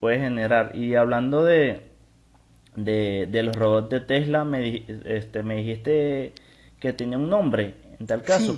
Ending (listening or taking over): listening